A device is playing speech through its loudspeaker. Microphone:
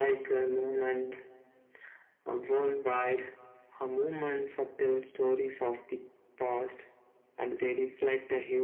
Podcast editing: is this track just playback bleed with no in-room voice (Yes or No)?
Yes